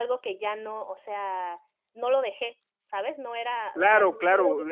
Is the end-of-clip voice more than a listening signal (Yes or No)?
Yes